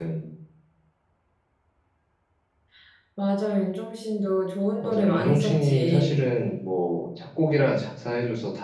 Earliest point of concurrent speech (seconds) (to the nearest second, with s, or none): 5 s